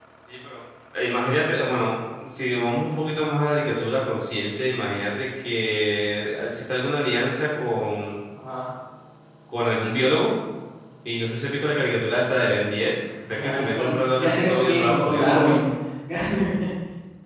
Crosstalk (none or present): present